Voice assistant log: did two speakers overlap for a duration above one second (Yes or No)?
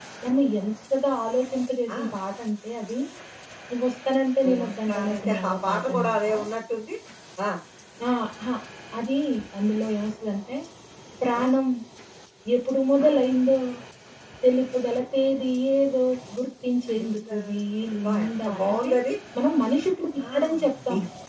Yes